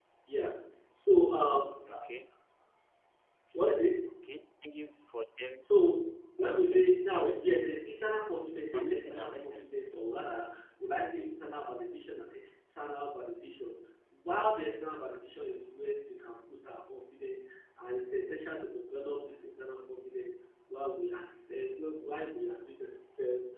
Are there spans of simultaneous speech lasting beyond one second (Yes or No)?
Yes